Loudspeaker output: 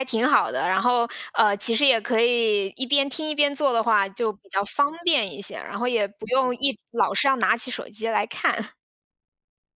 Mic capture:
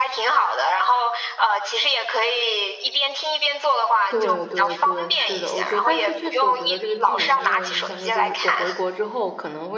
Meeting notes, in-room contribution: present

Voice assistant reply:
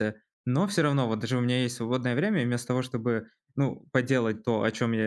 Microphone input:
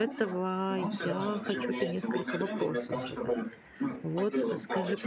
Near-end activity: present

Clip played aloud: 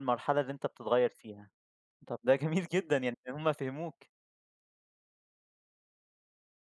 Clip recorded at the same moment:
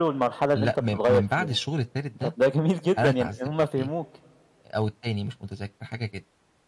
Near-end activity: present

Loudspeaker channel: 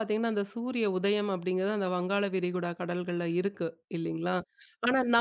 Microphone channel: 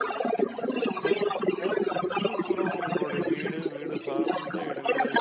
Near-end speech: present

